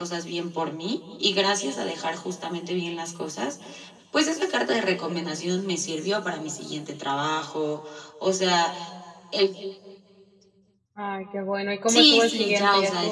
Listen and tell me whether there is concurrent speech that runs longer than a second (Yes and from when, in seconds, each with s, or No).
Yes, from 11.9 s